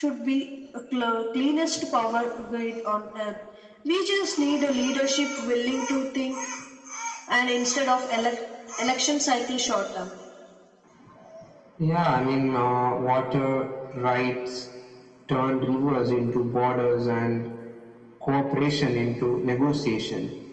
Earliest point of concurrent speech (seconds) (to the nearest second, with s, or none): none